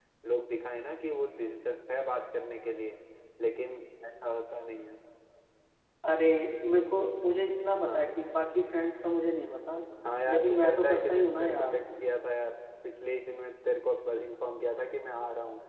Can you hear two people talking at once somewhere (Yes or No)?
Yes